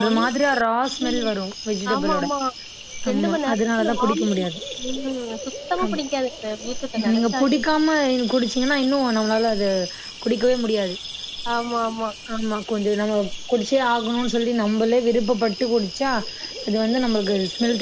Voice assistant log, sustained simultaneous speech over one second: present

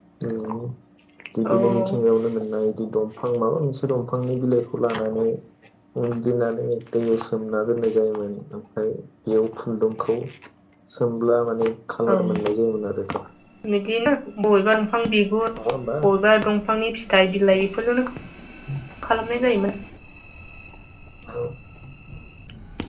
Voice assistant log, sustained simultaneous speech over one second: none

